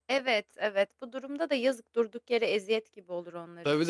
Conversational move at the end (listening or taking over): taking over